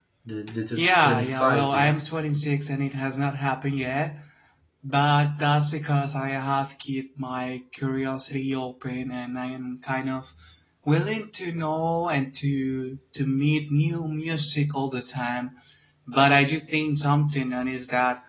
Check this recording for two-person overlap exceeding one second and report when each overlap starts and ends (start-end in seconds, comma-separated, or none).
0.8-2.0